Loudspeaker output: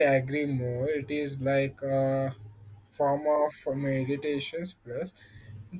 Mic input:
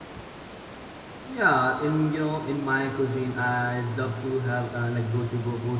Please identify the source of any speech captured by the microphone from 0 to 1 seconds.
neither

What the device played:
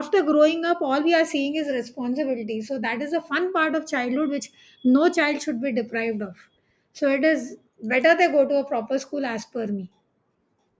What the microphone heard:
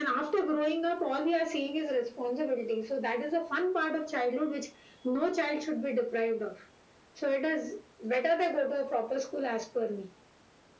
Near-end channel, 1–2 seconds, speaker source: echo only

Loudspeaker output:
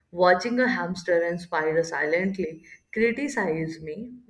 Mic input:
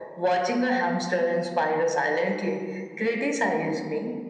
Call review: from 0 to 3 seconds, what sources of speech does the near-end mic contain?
echo only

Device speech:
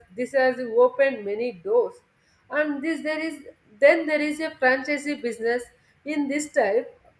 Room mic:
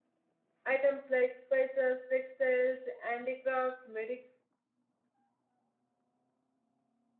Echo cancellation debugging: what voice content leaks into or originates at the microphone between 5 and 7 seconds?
neither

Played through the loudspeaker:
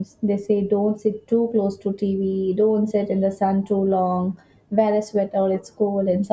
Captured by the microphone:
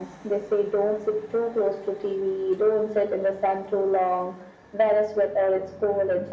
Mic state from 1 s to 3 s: echo only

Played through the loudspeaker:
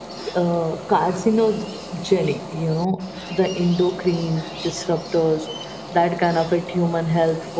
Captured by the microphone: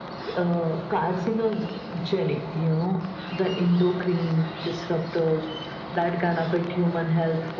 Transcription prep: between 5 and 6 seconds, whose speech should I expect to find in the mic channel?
echo only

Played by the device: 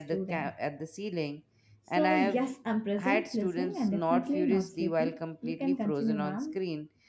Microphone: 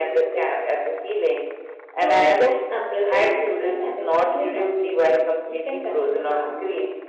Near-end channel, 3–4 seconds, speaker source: echo only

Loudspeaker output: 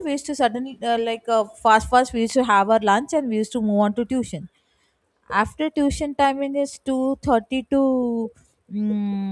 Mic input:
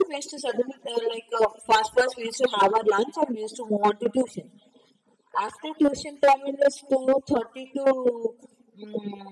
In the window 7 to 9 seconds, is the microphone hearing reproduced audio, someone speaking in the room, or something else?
echo only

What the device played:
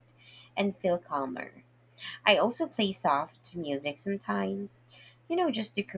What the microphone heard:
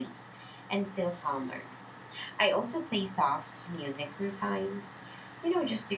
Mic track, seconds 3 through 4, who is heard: echo only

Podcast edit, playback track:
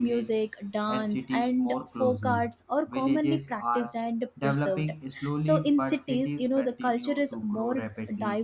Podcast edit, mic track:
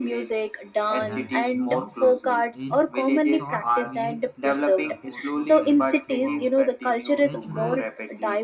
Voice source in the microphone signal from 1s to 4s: both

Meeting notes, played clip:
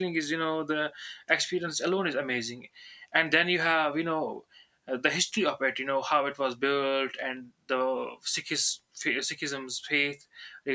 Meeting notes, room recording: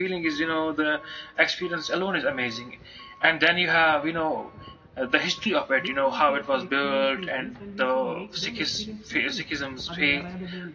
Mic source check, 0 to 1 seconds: echo only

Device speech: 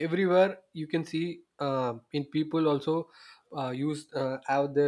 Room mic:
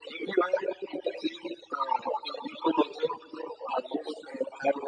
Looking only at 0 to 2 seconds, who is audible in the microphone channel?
echo only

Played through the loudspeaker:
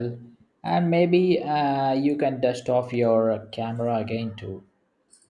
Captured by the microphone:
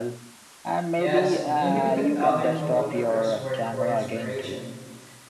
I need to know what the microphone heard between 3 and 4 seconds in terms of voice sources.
both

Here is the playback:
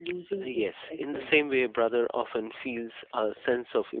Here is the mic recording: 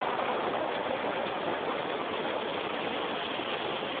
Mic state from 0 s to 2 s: neither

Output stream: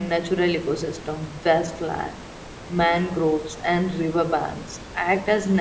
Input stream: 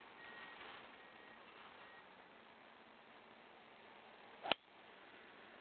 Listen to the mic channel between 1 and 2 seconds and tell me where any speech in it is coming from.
neither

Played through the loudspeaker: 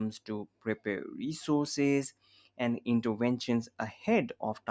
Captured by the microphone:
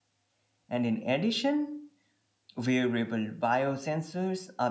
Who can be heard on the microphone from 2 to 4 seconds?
user only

